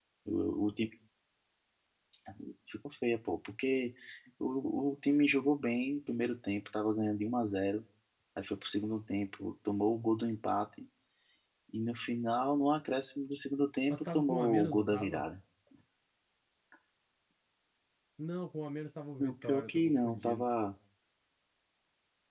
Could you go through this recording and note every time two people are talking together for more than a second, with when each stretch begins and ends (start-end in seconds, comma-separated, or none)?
13.9-15.3, 19.2-20.4